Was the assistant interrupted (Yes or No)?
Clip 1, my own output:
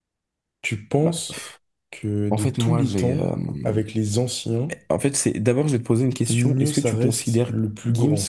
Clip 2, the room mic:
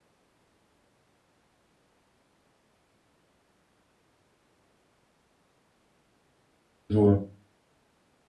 Yes